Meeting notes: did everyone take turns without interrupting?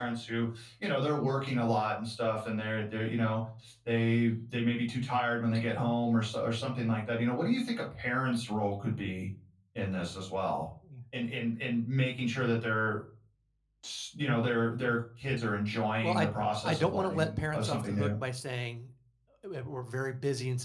No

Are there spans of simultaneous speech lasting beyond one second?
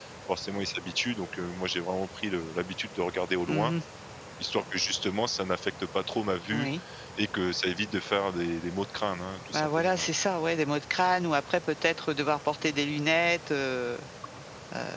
No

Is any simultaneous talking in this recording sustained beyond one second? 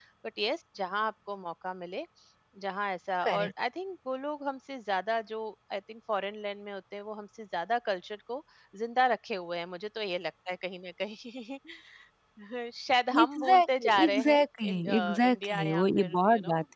Yes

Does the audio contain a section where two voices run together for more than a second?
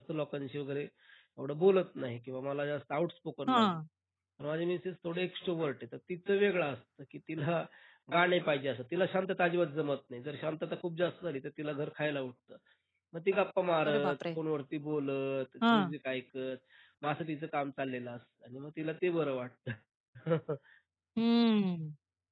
No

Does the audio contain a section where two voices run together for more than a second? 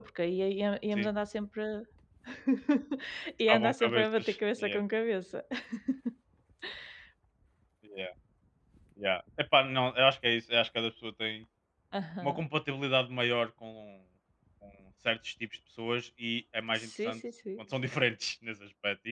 Yes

